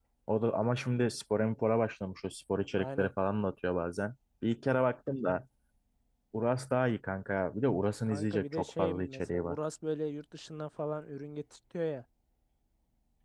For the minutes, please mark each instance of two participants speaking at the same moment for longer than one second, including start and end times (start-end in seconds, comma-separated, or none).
8.1-9.6